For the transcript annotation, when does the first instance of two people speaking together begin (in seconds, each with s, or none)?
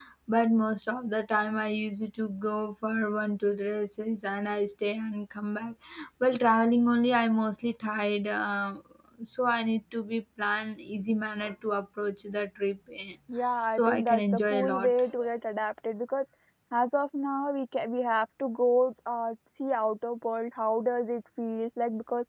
13.7 s